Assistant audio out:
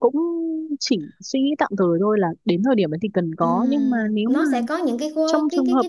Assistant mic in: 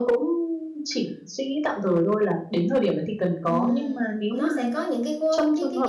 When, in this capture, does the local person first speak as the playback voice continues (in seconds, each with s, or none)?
none